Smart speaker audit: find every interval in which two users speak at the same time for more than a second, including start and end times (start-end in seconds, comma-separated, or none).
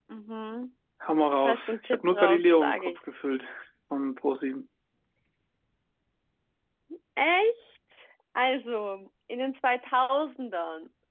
1.4-2.9